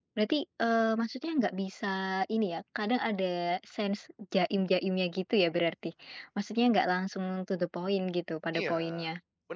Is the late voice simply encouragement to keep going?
No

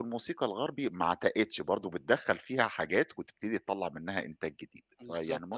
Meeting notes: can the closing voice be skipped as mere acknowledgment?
No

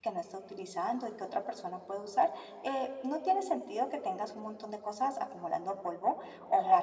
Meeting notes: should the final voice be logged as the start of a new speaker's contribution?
No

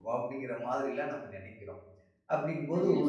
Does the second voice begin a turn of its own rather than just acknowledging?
No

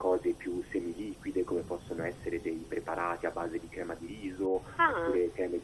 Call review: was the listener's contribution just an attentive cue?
Yes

